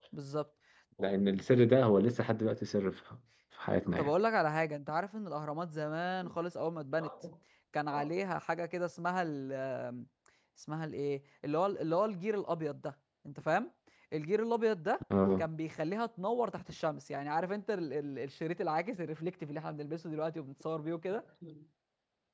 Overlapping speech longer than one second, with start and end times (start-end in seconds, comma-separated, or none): none